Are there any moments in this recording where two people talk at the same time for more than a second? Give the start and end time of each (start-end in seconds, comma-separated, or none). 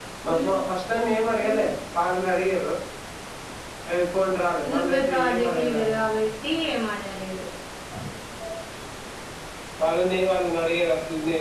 4.7-6.2